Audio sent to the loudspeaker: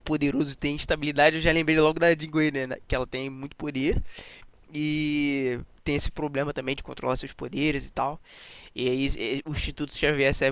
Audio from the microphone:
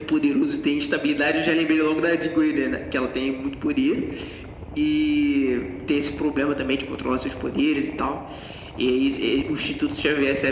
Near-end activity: none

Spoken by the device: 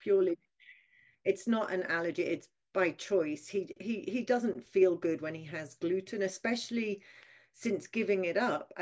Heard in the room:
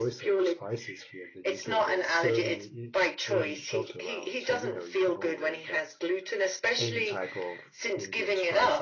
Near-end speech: present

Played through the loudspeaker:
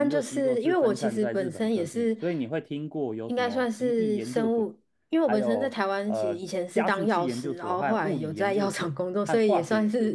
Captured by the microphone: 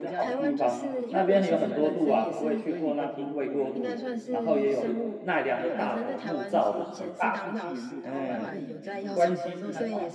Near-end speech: present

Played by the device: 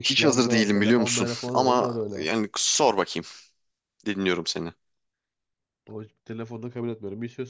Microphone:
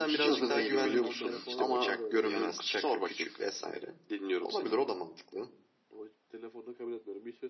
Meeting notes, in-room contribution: present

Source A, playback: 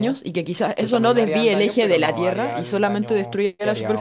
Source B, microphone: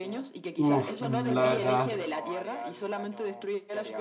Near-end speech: present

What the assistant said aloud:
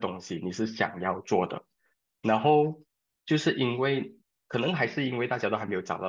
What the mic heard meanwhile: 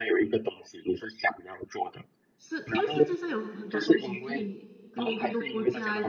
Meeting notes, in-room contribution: present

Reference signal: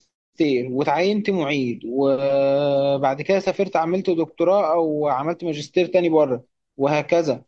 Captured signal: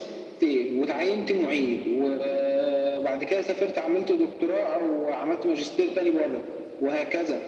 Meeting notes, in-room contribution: none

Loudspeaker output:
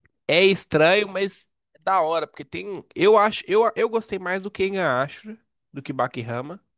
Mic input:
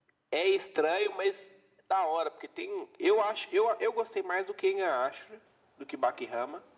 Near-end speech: none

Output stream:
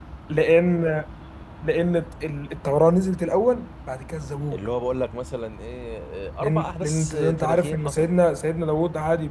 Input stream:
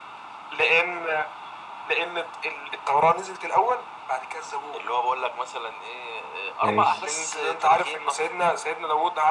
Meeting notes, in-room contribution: present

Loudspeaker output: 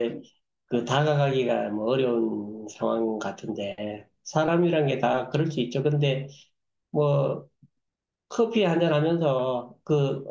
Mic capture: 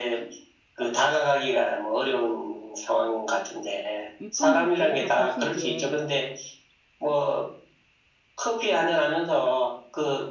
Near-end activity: present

